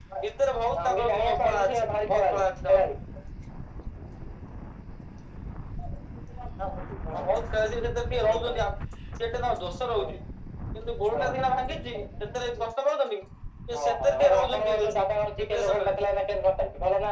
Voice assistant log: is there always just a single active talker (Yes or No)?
No